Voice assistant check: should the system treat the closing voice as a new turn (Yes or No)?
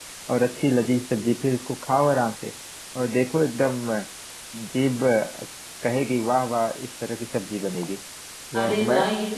Yes